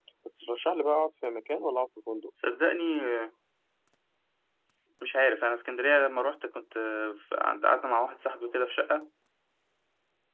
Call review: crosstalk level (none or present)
none